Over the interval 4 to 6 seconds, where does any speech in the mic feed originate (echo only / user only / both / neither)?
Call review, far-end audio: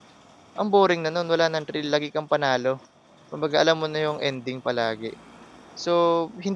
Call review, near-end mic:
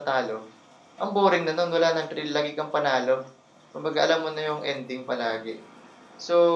echo only